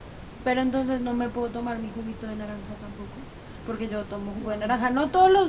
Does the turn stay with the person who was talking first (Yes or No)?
Yes